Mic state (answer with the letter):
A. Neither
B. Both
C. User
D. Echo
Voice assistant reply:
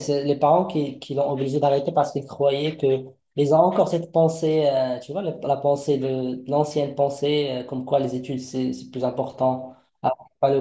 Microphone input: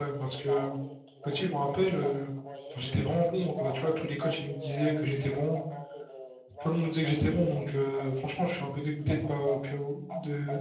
B